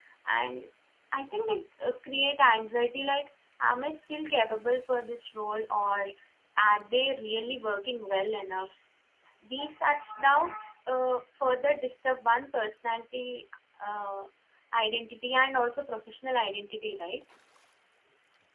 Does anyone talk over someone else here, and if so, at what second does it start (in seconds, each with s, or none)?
none